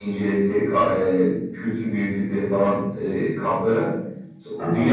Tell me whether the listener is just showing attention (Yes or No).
Yes